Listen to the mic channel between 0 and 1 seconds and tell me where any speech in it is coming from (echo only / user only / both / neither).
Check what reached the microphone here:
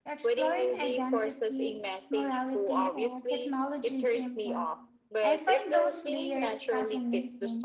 both